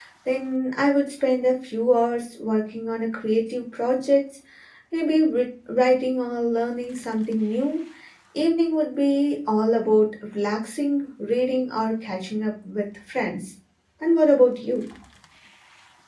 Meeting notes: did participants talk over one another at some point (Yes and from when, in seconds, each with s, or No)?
No